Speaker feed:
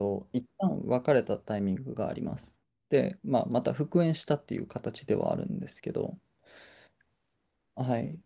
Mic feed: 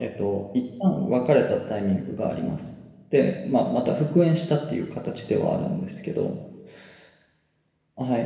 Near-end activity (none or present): none